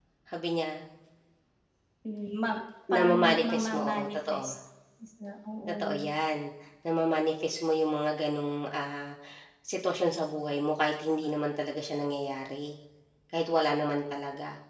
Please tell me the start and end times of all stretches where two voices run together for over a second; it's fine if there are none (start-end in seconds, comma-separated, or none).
2.9-4.5